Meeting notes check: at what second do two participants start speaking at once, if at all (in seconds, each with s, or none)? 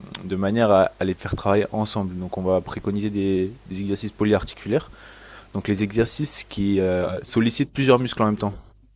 none